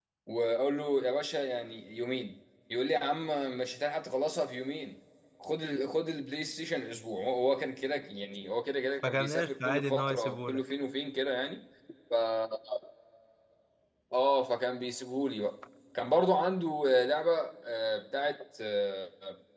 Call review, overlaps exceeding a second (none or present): present